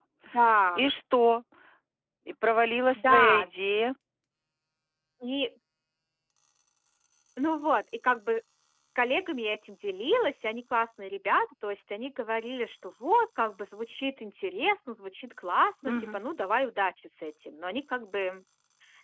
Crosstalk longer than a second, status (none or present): none